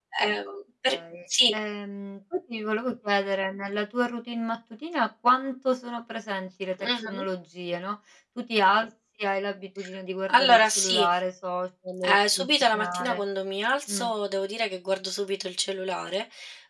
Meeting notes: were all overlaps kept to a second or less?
No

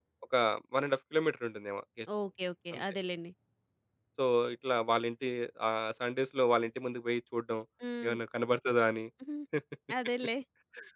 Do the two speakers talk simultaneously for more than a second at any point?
No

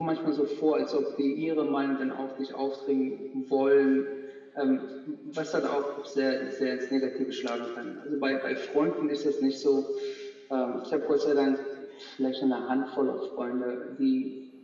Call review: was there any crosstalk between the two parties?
No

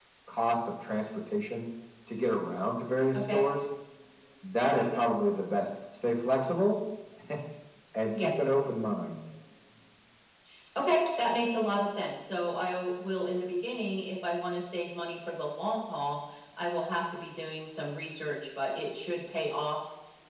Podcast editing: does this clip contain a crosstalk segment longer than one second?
No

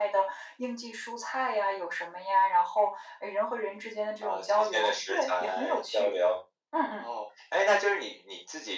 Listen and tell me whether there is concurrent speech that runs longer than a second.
Yes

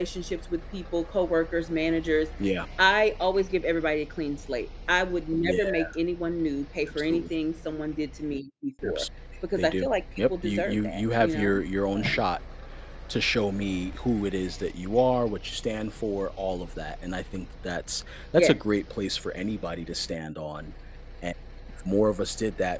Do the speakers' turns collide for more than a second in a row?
Yes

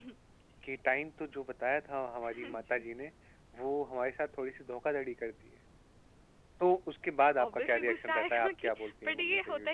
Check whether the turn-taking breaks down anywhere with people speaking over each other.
Yes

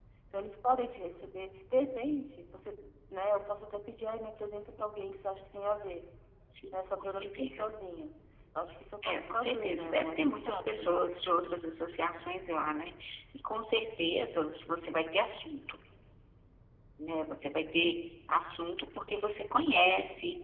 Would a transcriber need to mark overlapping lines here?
Yes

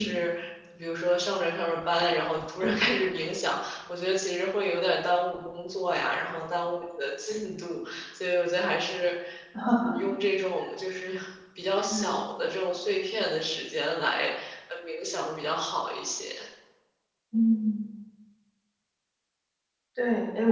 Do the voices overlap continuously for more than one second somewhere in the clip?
No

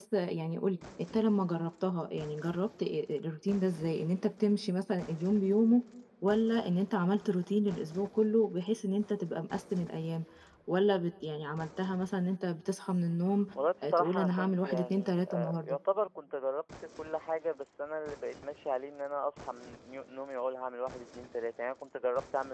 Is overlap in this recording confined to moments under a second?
No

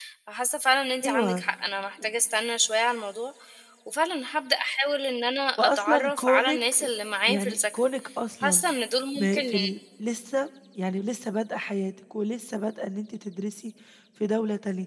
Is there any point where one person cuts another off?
Yes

